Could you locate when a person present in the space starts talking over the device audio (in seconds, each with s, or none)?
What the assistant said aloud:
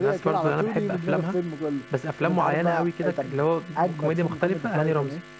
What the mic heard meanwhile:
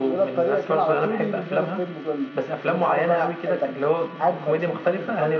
none